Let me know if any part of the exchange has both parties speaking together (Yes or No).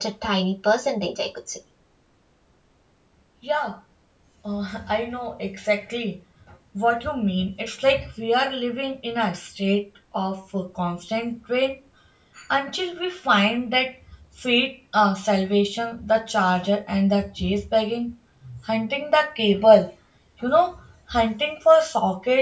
No